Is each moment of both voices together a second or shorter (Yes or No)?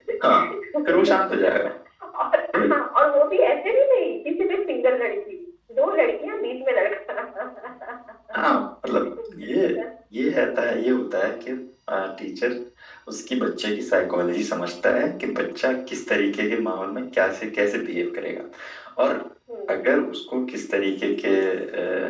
Yes